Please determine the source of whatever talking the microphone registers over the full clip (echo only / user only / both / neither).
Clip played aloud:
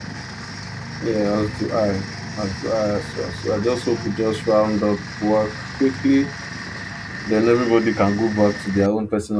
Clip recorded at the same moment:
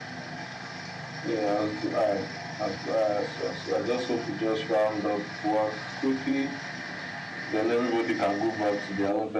echo only